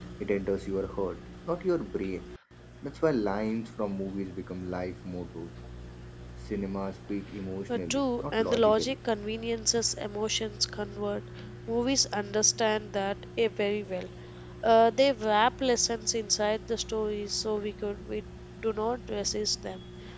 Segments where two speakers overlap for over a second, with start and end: 7.7-8.9

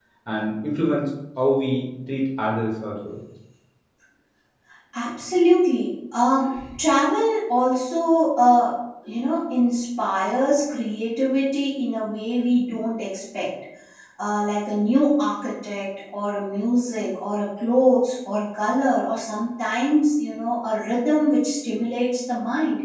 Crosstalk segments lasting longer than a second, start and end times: none

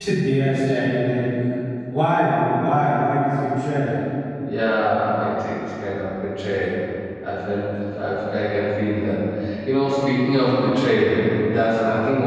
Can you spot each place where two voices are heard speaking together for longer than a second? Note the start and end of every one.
none

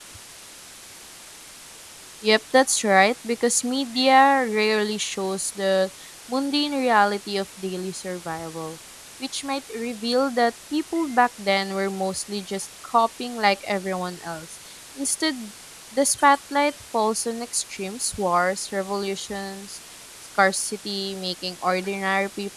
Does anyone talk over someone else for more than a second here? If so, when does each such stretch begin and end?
none

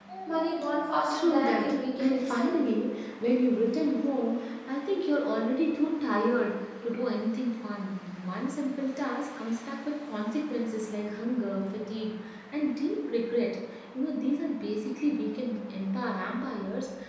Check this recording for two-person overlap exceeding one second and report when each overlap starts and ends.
1.1-2.6

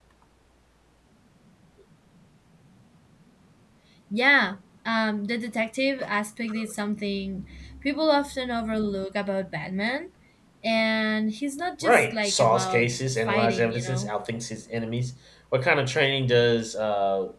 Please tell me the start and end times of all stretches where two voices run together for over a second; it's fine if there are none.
11.8-14.1

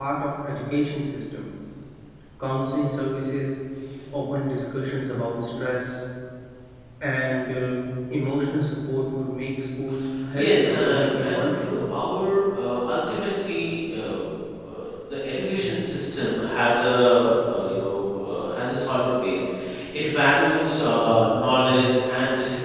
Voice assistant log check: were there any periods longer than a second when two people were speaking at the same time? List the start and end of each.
10.3-11.7

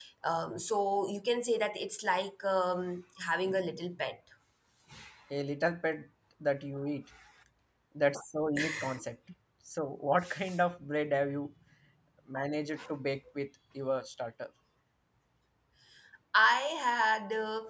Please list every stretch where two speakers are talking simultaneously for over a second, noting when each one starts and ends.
none

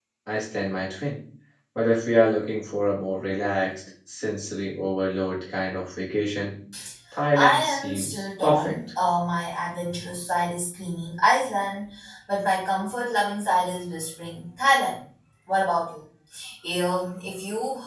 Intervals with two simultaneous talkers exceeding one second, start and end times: 7.3-8.7

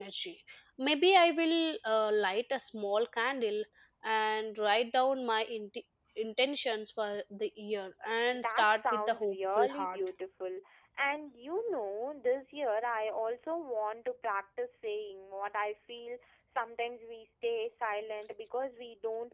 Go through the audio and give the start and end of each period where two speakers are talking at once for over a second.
8.3-10.0

